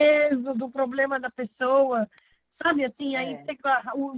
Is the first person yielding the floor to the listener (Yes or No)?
No